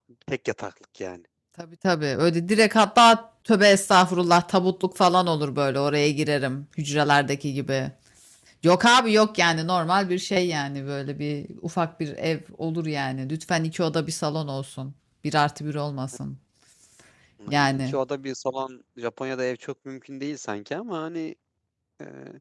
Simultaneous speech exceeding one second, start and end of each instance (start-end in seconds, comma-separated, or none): none